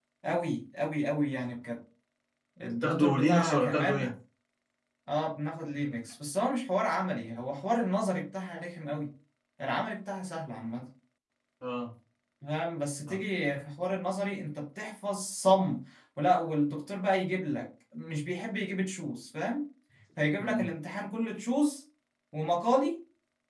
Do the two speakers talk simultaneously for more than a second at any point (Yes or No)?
Yes